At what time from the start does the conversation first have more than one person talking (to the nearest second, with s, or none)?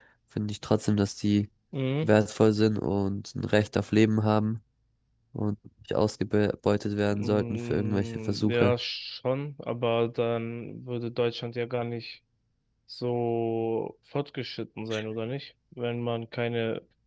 7 s